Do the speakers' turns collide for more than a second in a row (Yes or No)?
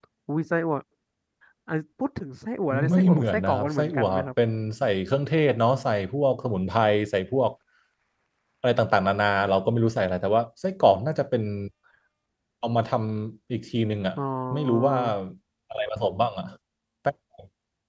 Yes